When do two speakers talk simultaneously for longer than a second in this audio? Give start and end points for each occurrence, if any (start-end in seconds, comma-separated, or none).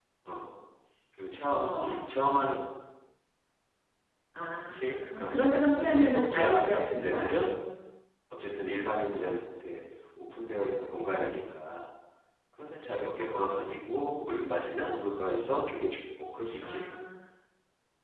4.6-7.3